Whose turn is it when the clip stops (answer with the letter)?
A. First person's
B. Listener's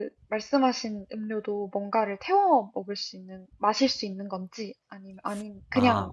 B